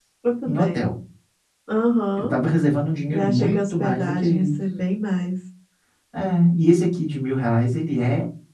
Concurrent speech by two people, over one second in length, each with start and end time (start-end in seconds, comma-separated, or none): 3.1-4.6